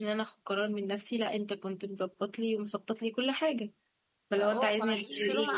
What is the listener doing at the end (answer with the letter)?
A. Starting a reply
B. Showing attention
A